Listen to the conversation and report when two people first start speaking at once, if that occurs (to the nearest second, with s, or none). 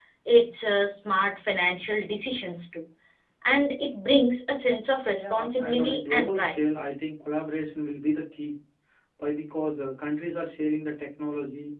5 s